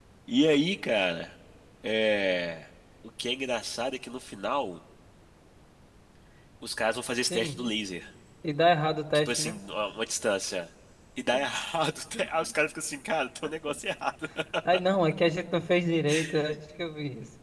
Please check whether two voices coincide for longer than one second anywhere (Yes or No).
No